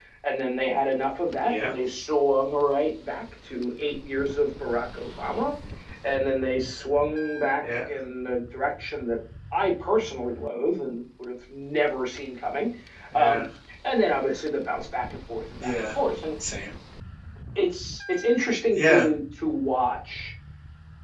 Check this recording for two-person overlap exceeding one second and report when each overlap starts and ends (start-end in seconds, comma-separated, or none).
none